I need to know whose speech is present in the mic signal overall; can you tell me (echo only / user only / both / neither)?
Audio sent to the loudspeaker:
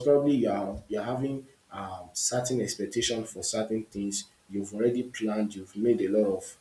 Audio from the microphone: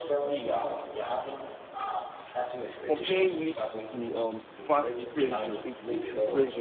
both